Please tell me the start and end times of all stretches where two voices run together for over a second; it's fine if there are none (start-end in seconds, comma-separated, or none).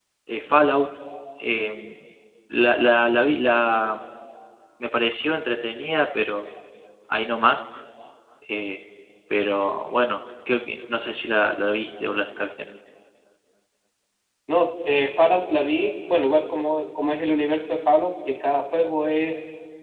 none